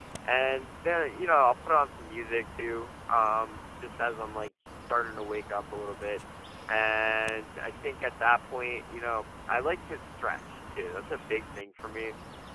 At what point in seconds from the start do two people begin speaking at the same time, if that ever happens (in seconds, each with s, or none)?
none